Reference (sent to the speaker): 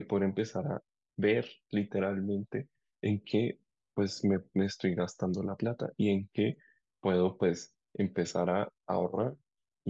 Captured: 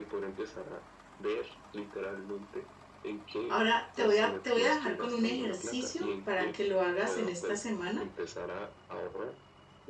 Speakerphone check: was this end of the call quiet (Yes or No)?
No